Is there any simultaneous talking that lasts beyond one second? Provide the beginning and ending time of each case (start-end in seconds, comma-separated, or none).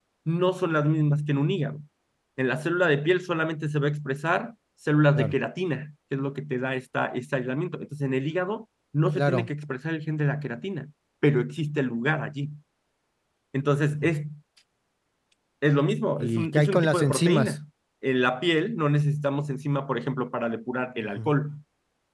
16.2-17.6